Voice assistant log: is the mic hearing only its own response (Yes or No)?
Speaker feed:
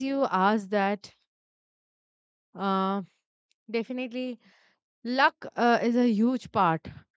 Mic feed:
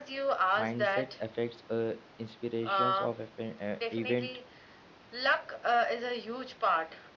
No